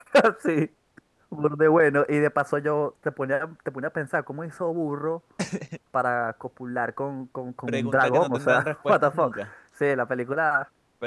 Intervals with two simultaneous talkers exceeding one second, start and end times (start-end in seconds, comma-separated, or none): 7.7-9.5